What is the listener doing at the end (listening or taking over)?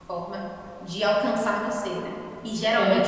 listening